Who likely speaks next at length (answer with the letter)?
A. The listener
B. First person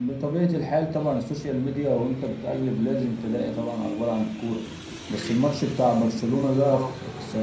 B